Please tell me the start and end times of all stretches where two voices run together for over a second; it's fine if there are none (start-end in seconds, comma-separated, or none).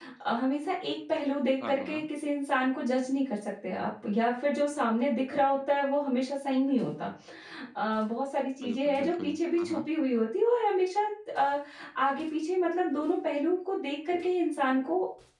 8.6-9.9